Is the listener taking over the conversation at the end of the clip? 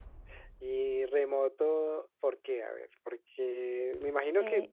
No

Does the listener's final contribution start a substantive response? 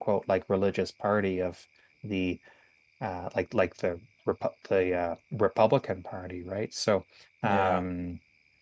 No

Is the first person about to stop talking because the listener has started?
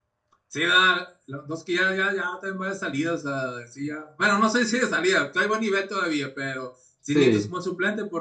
No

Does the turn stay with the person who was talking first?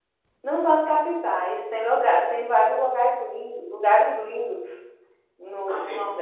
No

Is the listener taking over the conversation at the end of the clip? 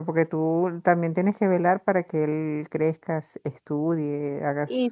Yes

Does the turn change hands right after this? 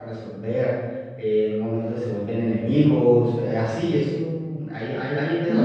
Yes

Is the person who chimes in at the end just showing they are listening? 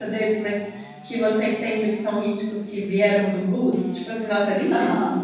No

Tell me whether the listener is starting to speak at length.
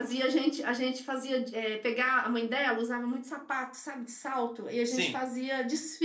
No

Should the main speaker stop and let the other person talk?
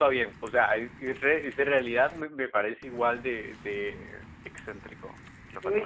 Yes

